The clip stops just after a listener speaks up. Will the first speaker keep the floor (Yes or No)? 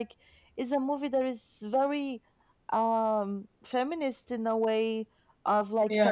Yes